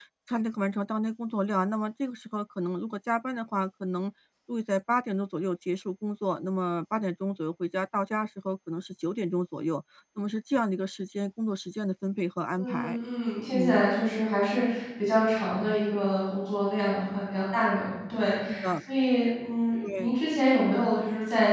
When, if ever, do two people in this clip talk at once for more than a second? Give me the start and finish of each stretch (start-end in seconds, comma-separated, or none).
none